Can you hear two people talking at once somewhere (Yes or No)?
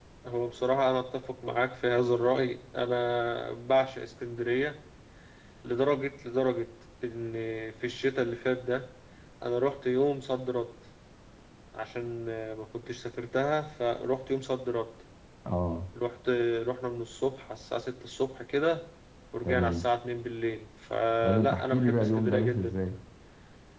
Yes